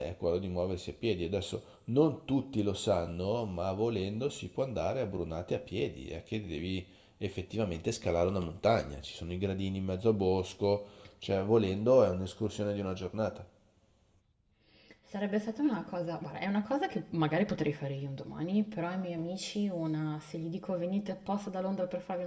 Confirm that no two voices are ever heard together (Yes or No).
Yes